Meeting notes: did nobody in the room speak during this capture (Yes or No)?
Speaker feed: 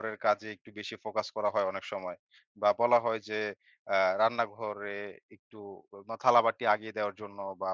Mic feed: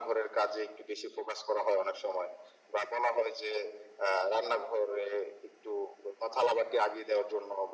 Yes